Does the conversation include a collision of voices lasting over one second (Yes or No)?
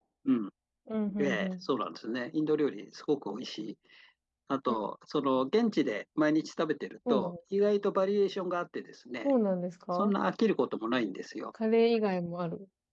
No